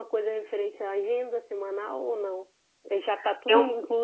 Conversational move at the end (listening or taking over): listening